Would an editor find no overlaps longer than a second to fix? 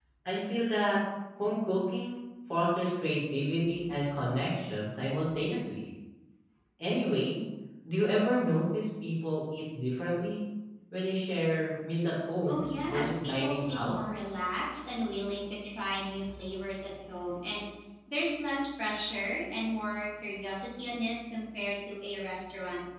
No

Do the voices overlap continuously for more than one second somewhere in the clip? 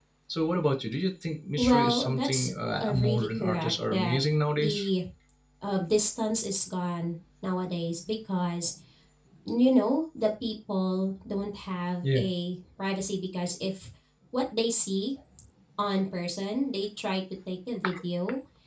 Yes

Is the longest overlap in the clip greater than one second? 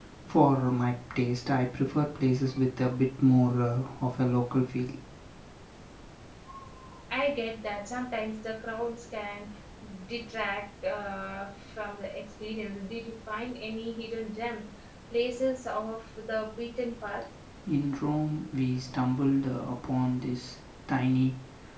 No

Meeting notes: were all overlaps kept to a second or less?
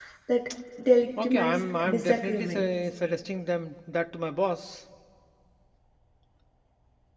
No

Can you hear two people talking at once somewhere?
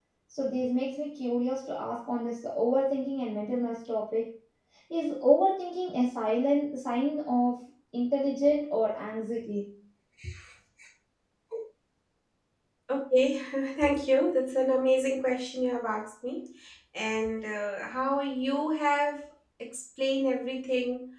No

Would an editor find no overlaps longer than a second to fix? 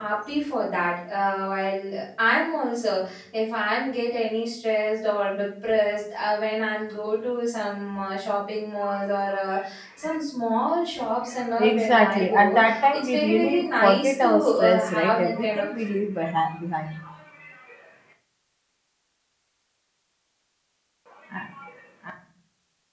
No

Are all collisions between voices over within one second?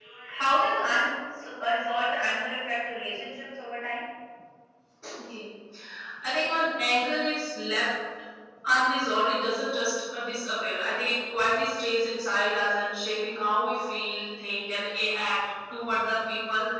Yes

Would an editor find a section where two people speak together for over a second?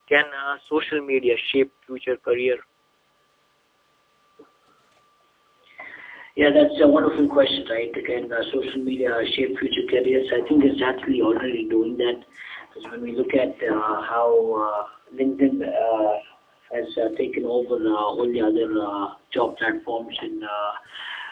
No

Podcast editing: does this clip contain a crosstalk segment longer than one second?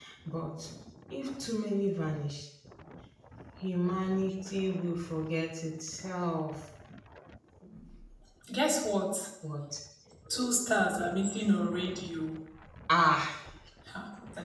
No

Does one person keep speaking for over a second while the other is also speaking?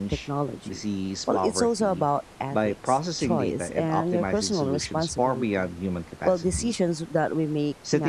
Yes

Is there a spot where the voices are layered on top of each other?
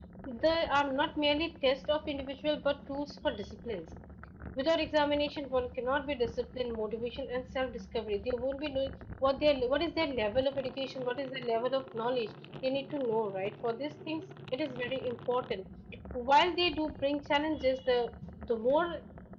No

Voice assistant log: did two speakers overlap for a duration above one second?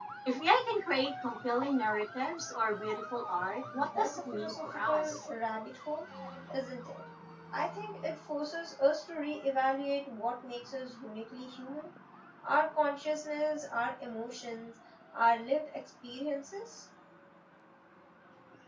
Yes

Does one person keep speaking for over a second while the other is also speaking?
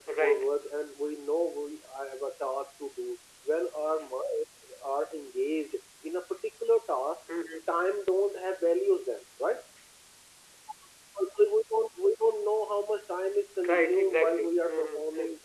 Yes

